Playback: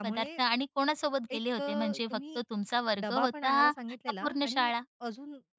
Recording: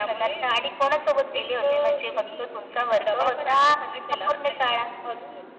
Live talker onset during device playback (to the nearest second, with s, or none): none